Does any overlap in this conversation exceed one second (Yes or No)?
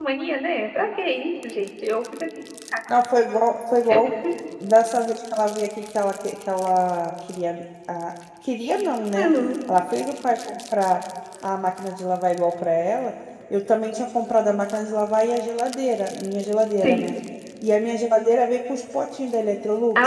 No